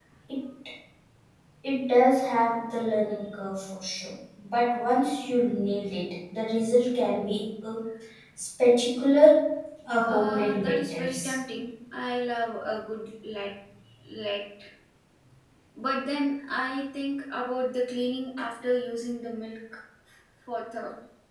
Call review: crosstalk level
present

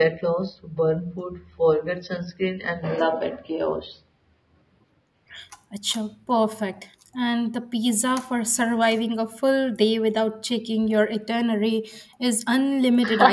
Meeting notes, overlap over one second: none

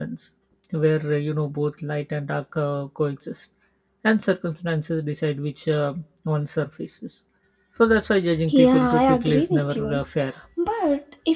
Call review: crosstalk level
present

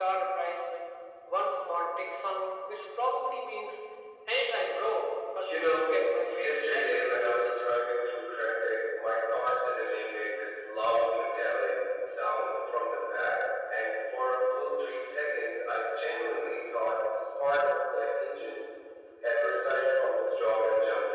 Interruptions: present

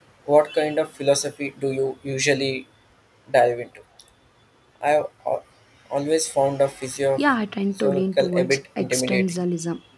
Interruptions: present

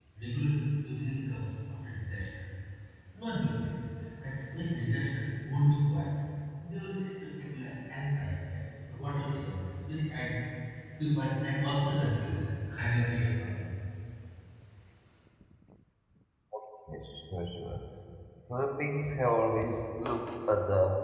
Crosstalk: none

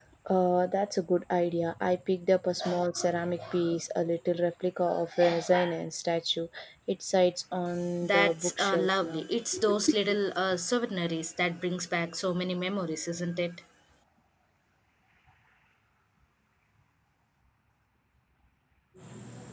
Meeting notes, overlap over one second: present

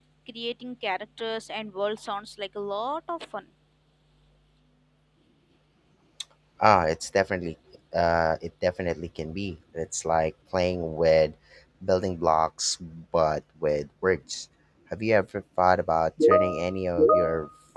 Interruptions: none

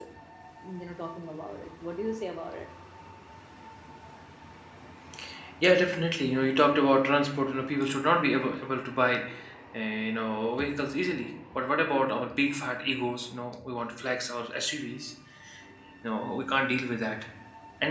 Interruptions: none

